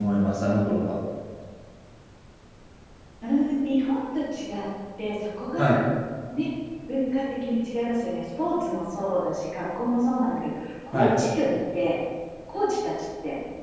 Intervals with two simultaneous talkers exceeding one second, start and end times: none

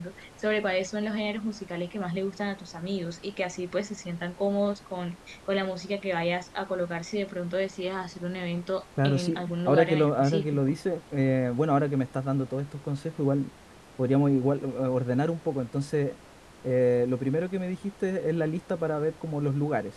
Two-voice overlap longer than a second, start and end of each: 9.0-10.6

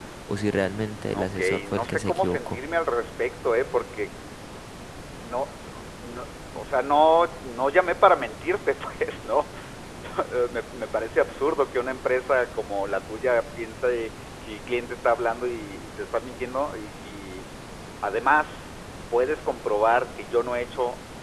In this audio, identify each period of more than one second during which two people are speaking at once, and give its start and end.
1.0-2.6

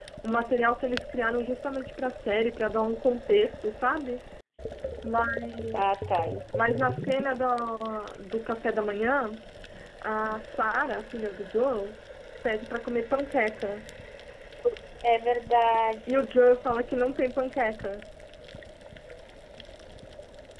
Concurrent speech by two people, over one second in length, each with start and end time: none

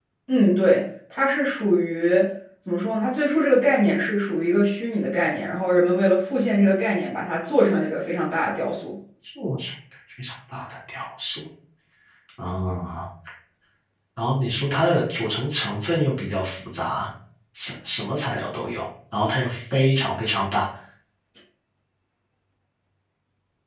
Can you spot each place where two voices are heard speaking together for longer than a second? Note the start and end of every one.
none

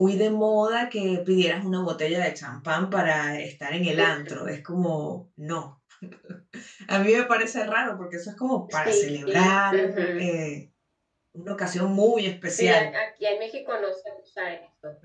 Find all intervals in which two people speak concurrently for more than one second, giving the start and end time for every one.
8.7-10.2

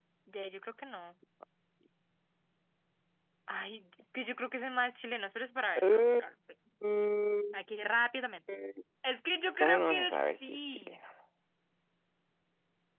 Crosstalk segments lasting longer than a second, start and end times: 9.6-11.0

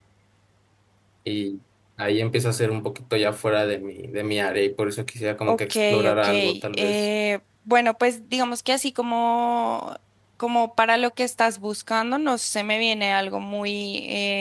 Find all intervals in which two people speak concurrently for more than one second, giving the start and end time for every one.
5.5-7.1

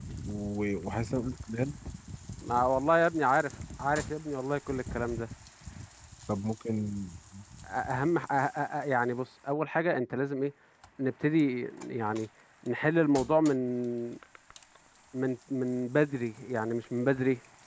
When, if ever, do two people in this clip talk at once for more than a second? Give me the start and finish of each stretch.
none

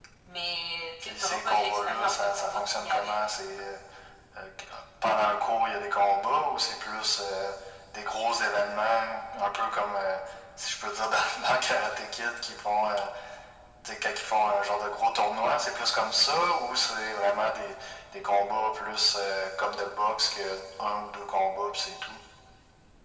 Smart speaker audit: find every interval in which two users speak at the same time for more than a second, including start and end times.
1.0-3.1

